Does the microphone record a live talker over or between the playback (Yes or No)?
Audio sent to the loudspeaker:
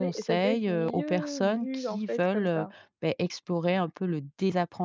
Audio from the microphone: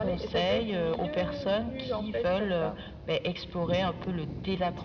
No